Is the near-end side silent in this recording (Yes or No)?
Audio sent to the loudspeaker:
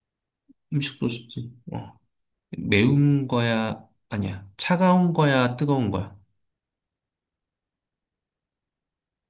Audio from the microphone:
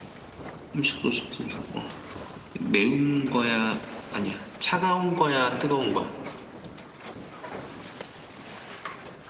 Yes